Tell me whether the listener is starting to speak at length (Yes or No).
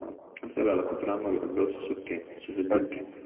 Yes